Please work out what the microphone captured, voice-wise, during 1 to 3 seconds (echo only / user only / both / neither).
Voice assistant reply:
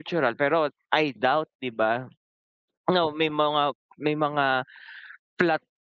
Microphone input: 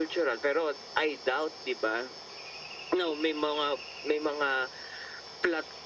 echo only